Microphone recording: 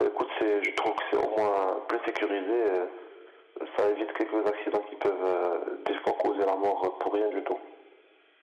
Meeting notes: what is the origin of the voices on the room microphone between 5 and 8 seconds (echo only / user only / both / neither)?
echo only